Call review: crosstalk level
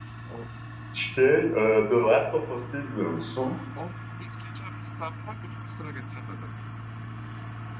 none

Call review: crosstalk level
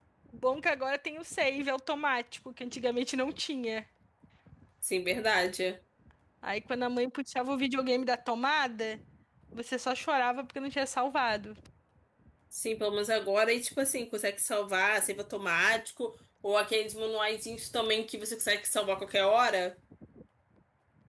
none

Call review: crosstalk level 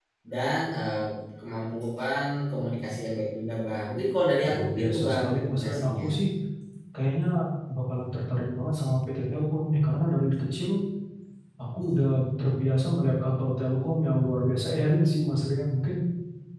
present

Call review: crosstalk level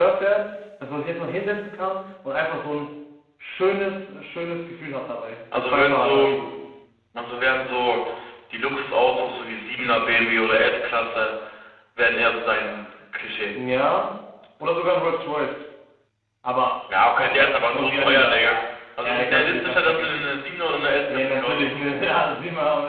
present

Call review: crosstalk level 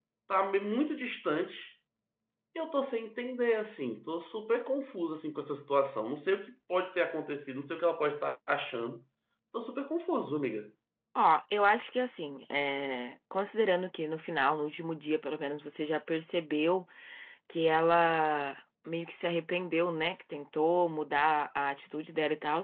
none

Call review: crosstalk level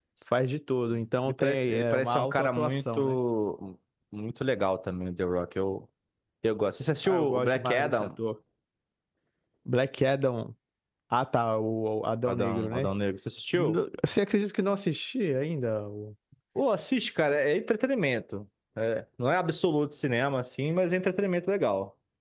present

